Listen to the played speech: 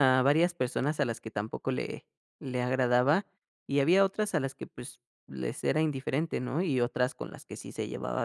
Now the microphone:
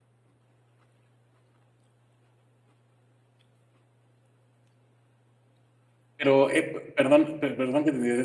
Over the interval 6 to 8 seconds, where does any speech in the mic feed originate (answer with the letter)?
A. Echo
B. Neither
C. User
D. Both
C